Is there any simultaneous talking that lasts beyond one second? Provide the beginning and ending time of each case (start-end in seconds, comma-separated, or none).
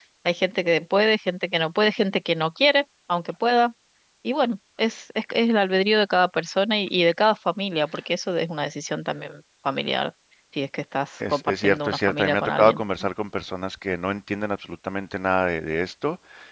11.3-12.8